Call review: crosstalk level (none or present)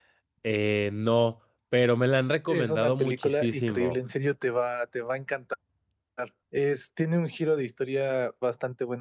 present